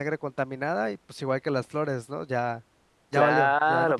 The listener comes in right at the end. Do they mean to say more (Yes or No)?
Yes